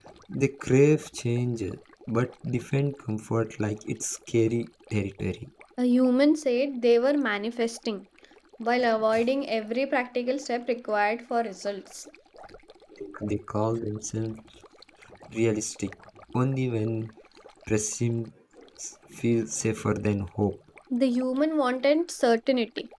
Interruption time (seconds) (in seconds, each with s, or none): none